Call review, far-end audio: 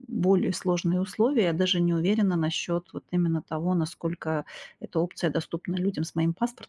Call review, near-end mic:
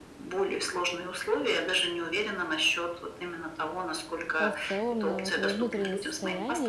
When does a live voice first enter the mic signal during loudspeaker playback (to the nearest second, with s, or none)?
4 s